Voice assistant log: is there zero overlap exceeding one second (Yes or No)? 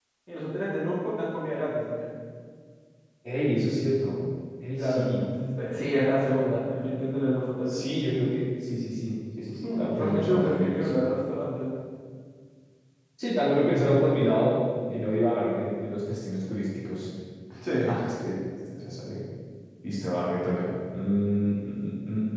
No